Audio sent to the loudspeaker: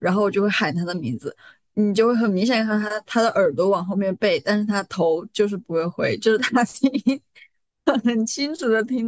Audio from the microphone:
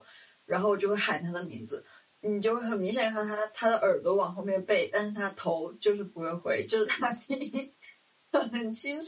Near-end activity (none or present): none